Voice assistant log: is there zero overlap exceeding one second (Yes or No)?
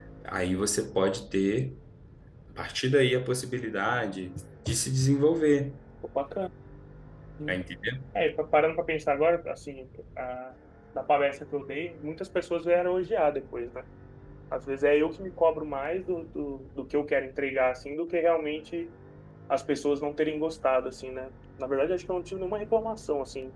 Yes